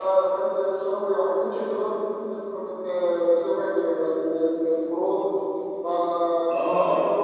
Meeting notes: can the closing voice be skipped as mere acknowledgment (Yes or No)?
Yes